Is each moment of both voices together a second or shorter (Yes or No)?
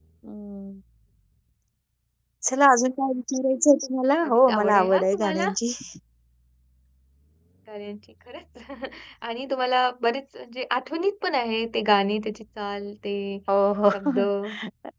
No